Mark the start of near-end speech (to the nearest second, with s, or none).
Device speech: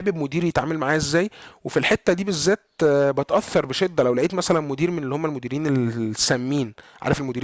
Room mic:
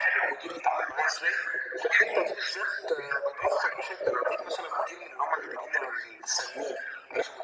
none